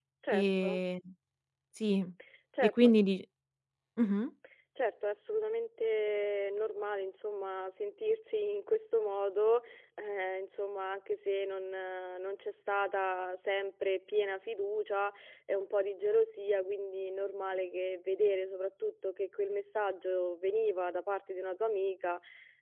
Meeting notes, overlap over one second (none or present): none